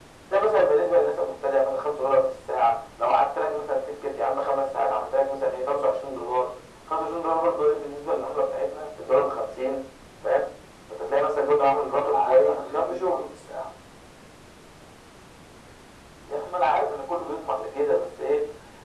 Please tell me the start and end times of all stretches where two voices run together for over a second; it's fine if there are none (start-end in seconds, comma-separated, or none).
11.9-13.2